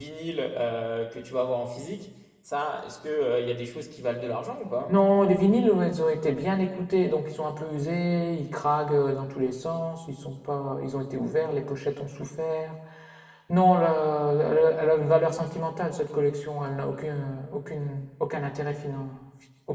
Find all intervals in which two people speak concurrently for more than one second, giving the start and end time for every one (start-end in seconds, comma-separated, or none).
none